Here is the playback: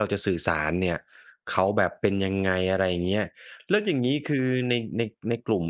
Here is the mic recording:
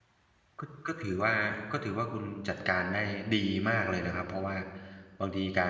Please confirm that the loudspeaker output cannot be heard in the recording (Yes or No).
Yes